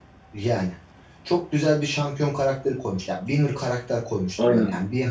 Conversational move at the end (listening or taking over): listening